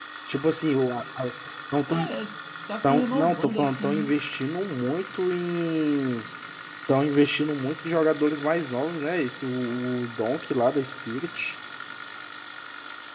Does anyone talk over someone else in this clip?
Yes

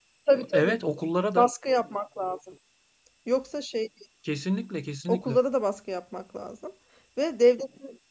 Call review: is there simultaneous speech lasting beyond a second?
No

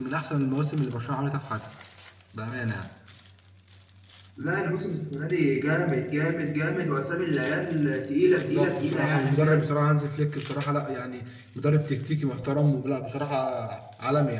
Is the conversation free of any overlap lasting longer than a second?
No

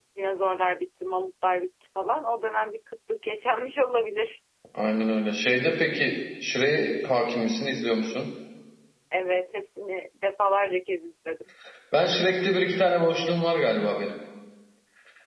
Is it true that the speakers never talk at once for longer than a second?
Yes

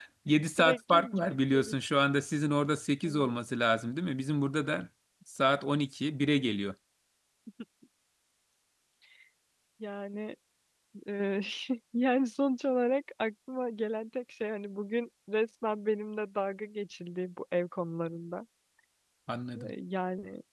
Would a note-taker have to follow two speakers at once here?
Yes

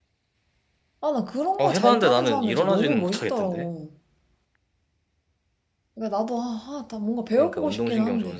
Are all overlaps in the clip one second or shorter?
No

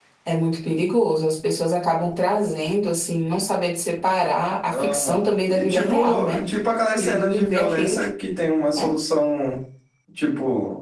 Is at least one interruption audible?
Yes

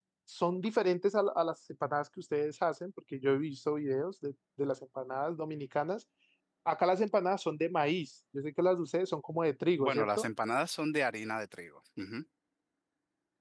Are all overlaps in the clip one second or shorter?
Yes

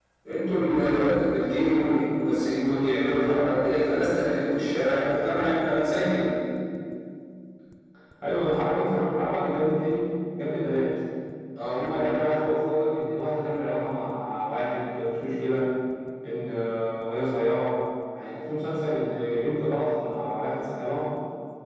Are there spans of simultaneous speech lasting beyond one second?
No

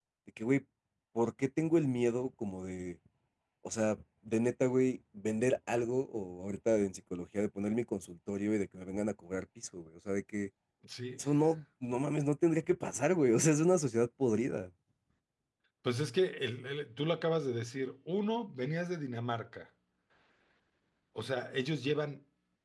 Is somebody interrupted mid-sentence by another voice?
No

